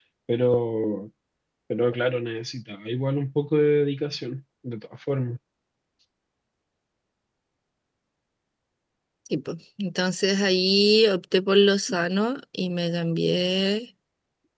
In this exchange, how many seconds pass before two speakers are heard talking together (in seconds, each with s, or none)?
none